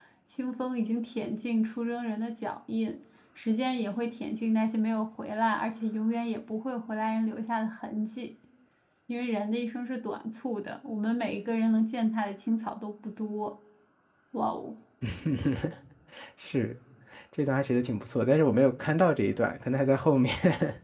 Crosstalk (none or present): none